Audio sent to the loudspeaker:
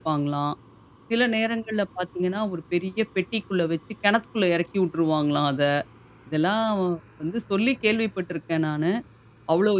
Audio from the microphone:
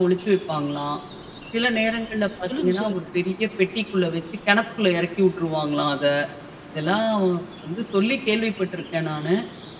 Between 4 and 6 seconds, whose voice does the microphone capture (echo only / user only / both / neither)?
echo only